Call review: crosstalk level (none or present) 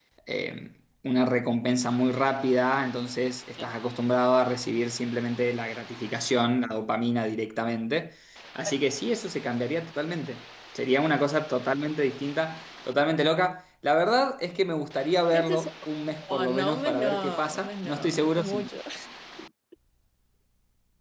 present